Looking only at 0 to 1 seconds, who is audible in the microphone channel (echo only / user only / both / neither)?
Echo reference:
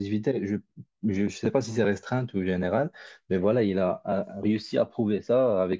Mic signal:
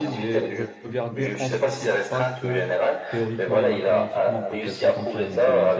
both